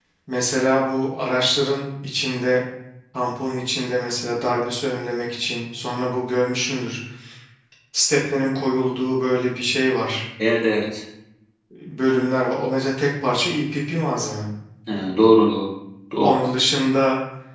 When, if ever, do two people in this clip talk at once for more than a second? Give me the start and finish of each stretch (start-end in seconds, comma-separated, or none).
none